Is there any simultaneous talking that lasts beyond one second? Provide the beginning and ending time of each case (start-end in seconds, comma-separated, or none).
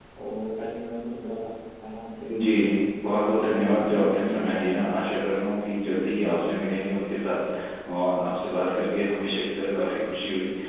3.1-4.7